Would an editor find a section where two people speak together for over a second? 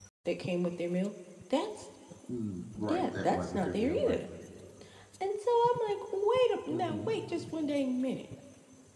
Yes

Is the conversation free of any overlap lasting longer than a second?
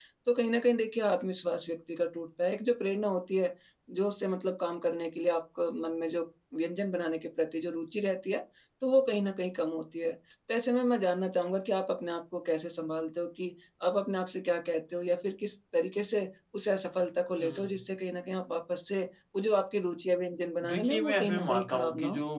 No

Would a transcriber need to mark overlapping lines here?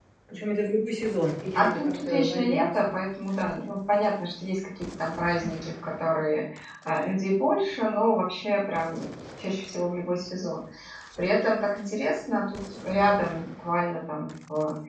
Yes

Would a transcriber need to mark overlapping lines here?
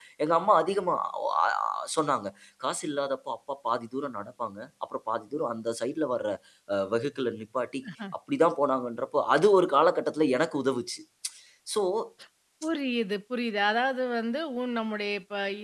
No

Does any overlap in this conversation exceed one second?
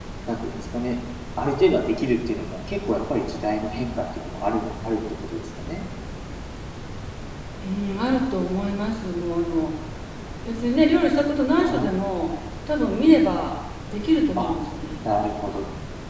No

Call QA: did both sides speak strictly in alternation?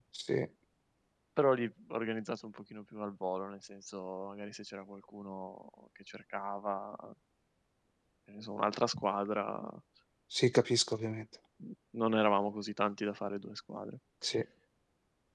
Yes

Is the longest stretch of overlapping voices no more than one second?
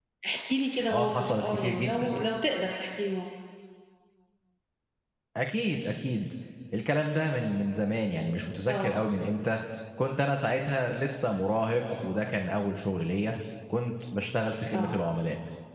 No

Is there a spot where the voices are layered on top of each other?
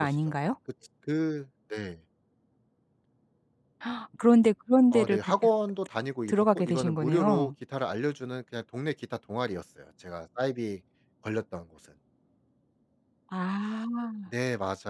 Yes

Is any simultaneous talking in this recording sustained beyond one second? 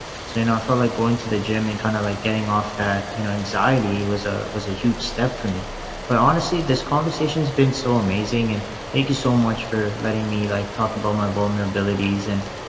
No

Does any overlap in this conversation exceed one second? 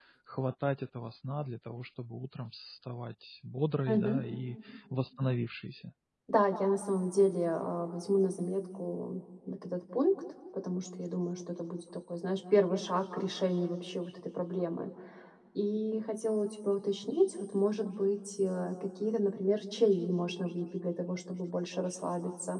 No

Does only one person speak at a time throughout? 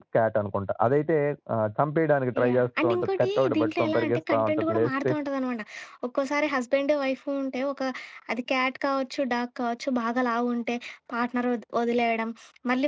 No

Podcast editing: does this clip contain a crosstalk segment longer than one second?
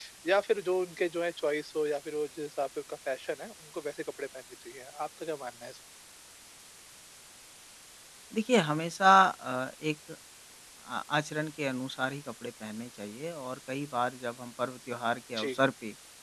No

